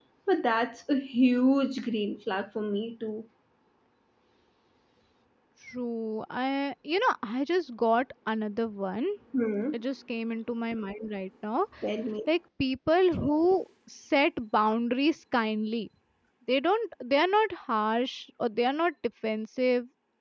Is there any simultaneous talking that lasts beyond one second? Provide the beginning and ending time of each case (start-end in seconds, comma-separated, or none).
none